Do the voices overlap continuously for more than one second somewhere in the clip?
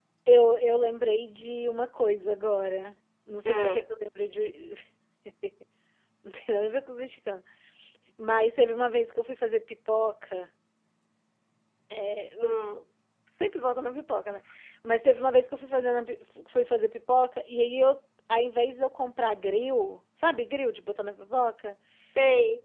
No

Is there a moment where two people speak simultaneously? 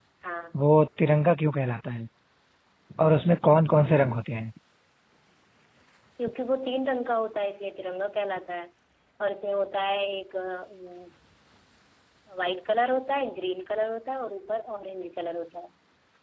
No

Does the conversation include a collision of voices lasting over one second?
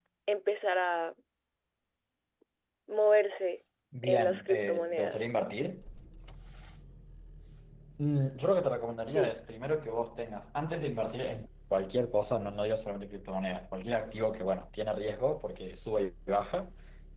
Yes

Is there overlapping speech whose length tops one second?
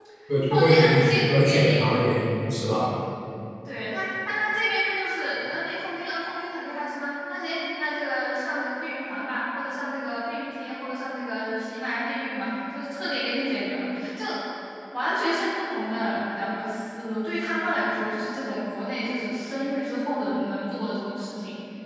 Yes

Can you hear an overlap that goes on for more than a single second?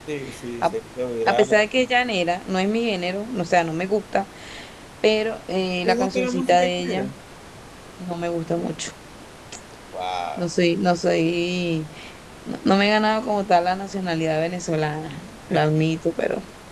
Yes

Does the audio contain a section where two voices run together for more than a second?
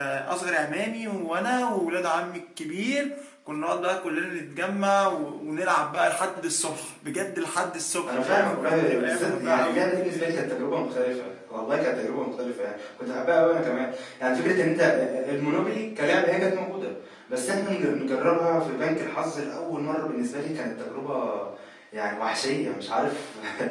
Yes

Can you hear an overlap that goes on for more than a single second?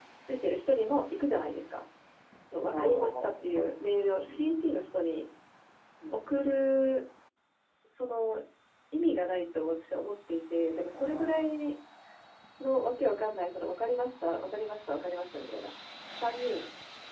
Yes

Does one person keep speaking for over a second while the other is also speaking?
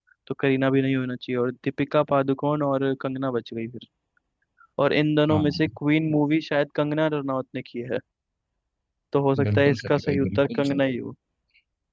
Yes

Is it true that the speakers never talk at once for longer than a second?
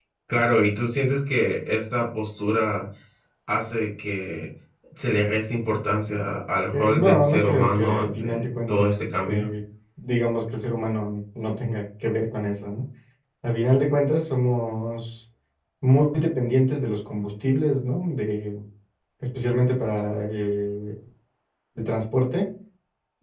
No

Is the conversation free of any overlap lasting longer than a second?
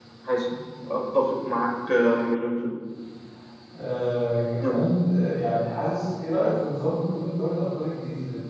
Yes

